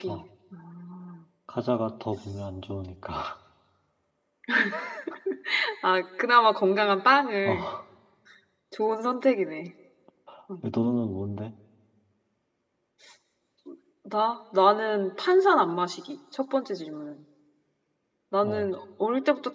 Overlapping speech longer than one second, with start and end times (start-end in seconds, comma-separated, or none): none